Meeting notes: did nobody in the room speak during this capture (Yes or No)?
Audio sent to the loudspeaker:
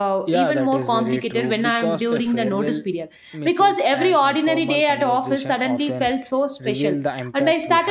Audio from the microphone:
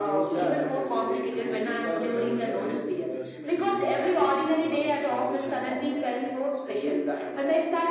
No